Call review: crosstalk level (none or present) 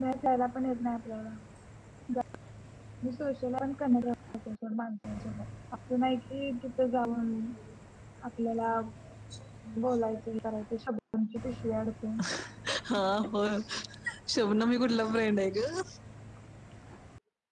none